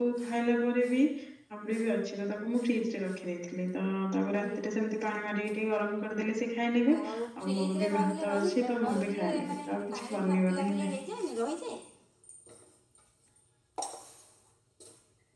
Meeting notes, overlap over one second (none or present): present